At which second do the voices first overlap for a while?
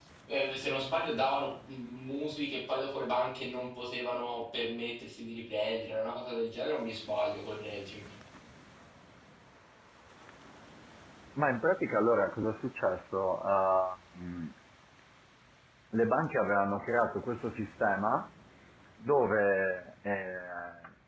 none

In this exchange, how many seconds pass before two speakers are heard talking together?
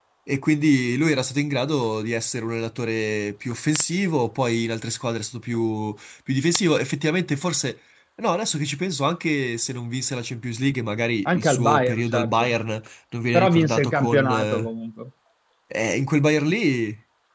11.2 s

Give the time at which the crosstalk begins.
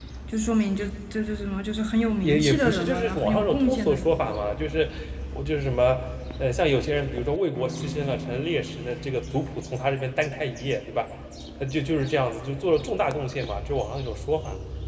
2.2 s

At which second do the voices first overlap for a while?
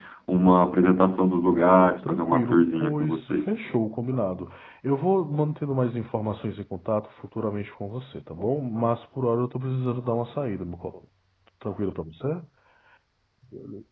2.0 s

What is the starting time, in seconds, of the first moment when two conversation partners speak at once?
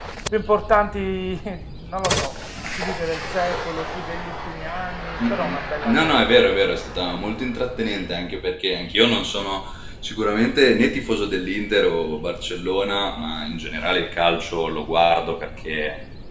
5.2 s

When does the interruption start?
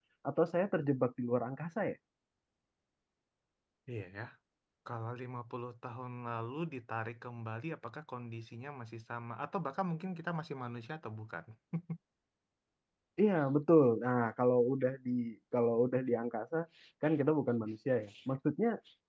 none

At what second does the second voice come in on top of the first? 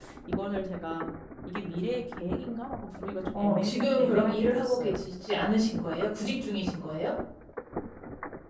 3.3 s

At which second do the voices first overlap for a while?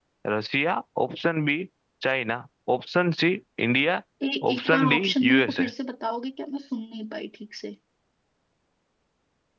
4.5 s

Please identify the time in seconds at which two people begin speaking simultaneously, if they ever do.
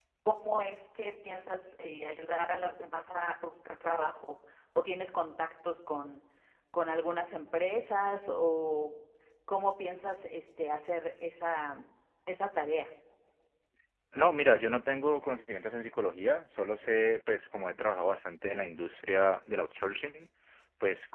none

